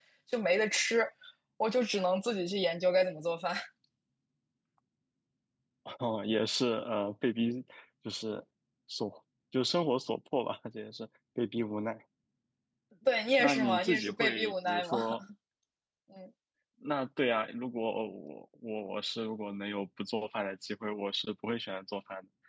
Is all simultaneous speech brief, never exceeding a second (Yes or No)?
No